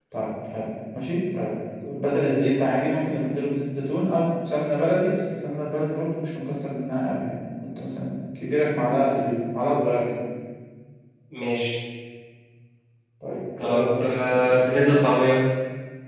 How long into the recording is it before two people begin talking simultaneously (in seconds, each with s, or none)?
13.6 s